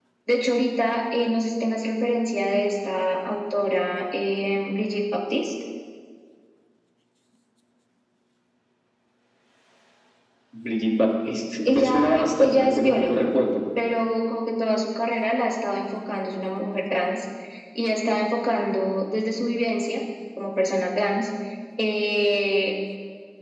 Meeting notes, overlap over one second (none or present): present